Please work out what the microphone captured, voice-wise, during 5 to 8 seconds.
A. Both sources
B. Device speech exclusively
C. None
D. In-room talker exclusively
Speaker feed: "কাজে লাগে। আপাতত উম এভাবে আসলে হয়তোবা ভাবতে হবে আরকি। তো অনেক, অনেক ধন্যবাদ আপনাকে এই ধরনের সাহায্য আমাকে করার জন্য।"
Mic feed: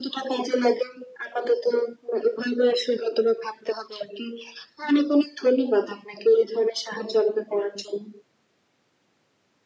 B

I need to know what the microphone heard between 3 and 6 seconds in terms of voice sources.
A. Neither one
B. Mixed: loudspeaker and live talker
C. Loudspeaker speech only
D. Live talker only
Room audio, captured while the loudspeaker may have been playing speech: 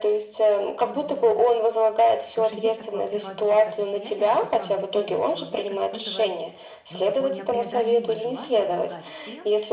B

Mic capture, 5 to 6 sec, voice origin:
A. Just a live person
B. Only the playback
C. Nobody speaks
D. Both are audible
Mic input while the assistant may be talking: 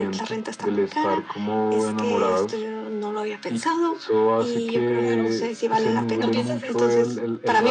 D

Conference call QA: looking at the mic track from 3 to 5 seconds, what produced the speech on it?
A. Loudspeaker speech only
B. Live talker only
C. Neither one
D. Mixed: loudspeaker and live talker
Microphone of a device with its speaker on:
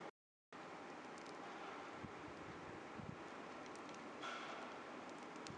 C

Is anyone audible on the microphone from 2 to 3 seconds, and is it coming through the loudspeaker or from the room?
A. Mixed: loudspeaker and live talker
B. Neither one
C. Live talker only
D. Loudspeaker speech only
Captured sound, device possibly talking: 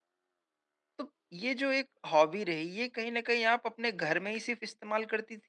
C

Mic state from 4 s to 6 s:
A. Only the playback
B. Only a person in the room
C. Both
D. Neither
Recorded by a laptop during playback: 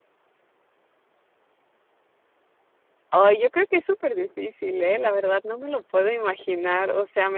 B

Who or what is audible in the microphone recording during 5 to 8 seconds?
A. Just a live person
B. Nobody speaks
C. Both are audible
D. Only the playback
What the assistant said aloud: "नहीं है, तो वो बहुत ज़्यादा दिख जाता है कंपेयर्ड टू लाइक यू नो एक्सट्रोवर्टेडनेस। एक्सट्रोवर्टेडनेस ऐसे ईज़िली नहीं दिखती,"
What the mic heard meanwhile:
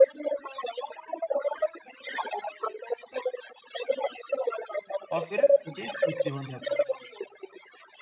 C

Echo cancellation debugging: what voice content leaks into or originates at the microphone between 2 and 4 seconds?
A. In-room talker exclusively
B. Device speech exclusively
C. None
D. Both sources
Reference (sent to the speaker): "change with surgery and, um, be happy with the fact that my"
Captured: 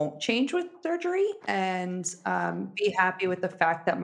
B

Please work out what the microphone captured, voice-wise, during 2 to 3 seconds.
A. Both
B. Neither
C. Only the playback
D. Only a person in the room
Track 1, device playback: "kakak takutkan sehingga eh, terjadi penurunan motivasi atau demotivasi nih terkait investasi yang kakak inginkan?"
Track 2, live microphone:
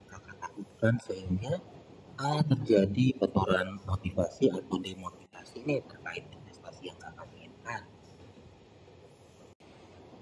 C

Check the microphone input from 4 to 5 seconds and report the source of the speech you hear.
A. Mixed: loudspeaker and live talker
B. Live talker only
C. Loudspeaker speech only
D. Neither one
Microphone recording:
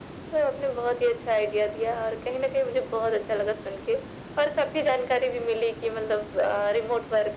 C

